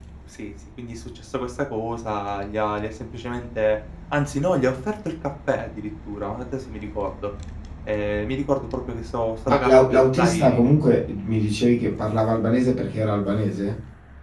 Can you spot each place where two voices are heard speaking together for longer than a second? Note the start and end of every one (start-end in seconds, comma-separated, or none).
9.5-10.7